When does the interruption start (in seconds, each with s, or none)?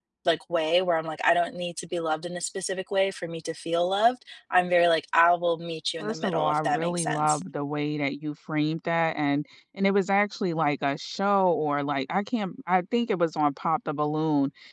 6.0 s